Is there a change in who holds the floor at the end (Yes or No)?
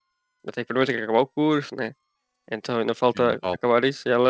No